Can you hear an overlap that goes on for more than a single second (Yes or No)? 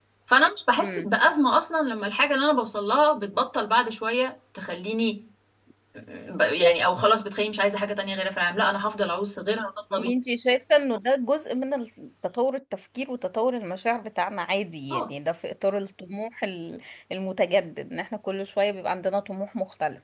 No